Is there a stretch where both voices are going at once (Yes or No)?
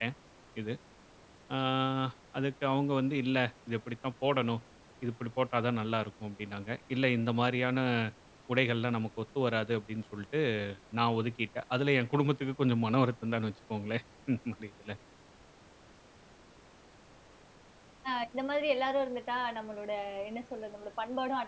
No